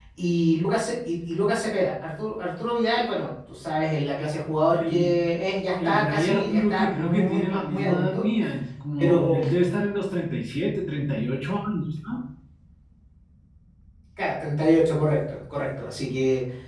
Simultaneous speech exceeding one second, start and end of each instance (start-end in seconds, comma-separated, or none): 5.8-8.3